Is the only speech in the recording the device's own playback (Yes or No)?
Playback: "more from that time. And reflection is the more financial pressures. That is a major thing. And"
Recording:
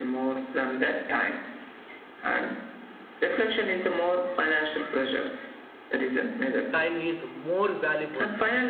No